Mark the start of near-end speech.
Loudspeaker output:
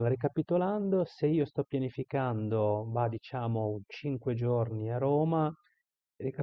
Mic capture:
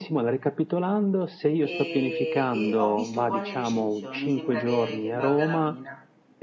1.6 s

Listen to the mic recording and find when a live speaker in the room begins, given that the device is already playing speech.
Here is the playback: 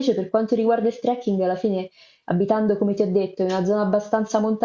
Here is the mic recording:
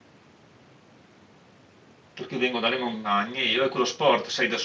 2.1 s

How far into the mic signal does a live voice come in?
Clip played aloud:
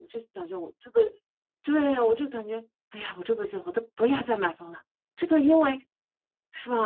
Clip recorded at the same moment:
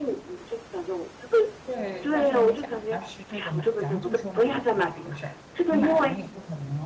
1.6 s

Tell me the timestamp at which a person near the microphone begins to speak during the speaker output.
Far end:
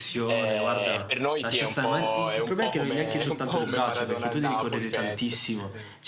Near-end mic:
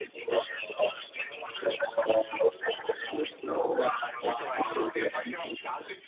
4.2 s

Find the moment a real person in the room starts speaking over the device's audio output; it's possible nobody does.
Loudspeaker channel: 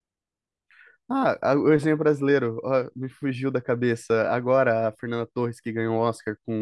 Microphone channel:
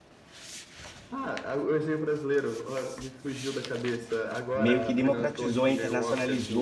4.5 s

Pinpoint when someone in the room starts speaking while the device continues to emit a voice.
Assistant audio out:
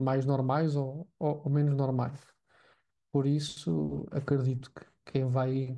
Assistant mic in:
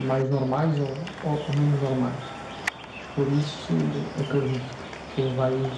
none

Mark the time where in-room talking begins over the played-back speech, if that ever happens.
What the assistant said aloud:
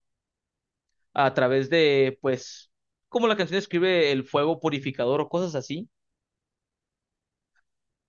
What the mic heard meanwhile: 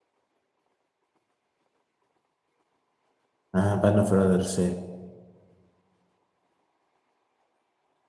3.6 s

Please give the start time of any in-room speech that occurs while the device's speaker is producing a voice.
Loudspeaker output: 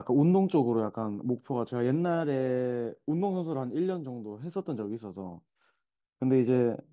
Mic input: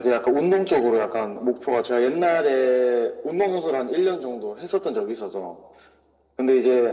none

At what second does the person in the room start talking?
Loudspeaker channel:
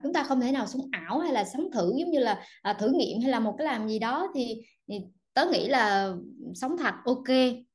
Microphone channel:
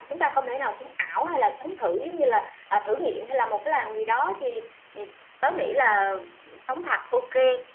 none

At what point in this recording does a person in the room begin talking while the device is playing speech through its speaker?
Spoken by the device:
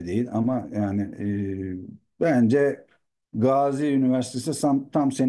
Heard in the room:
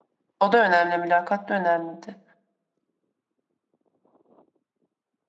0.4 s

